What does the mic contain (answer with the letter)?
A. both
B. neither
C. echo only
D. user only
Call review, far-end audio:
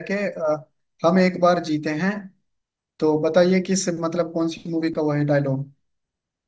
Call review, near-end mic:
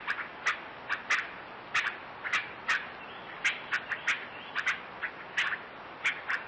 B